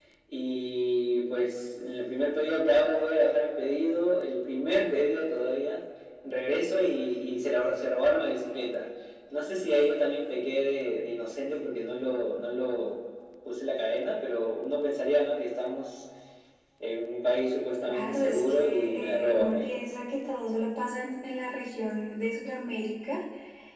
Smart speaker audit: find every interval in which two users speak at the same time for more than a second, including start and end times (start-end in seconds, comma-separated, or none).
17.8-19.7